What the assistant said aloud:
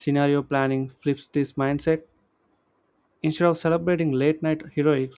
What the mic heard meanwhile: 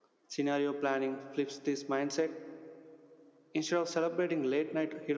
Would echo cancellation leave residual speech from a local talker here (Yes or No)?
No